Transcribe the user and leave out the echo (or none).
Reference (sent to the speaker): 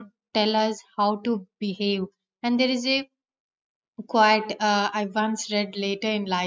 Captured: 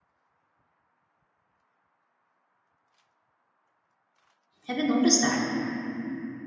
Have you noticed that?